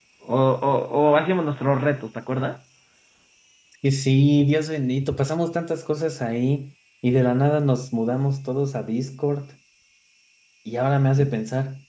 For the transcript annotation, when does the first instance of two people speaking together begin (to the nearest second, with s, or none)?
none